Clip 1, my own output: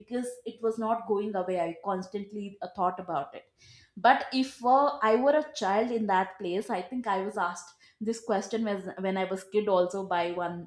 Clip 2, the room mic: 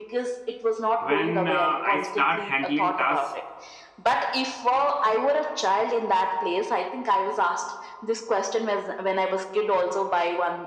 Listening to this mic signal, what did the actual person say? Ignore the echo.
when uh, i start handling tasks

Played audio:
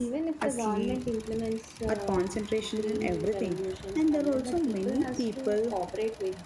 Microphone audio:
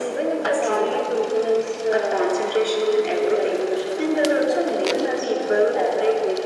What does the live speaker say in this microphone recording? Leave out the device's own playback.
none

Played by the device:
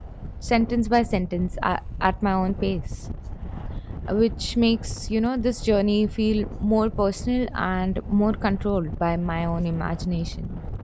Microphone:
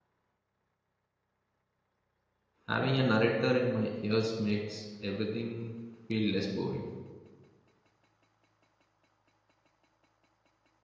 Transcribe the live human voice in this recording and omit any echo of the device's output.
having a narrator in my ears makes everything feel less boring.

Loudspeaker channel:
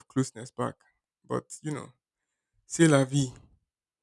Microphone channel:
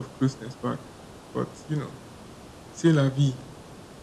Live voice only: none

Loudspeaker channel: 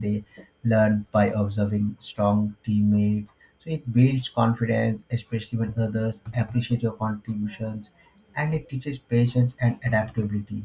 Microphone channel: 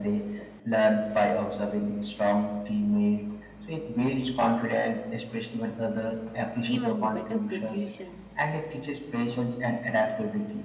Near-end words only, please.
even better solution.

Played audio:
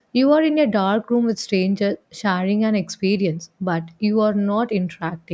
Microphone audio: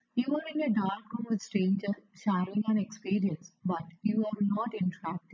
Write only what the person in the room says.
none

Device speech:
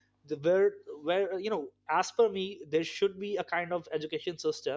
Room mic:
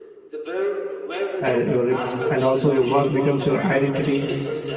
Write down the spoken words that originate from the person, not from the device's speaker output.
uh, your rep- and also your work becomes your identity

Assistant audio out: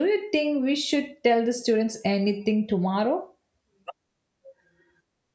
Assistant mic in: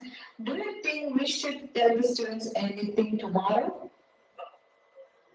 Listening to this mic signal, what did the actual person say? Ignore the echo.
none

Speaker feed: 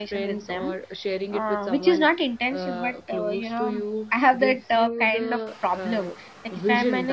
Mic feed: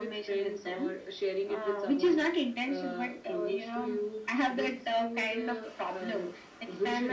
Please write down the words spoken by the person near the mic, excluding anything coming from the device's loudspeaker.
none

